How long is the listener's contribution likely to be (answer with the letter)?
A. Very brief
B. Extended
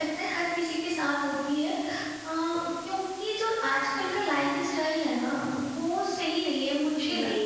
B